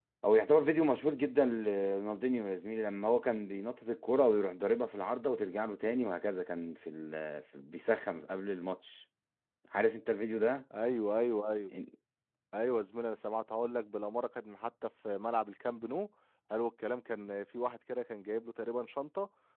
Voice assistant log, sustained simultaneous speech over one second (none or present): none